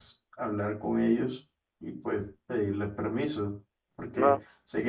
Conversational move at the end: listening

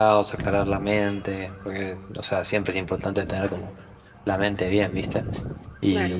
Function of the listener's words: listening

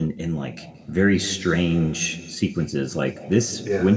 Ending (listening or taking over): listening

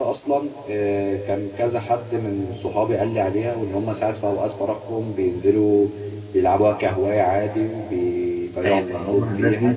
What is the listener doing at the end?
taking over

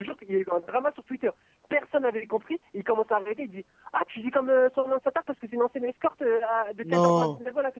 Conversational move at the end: listening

